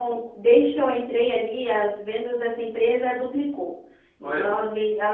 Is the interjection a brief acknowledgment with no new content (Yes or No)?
Yes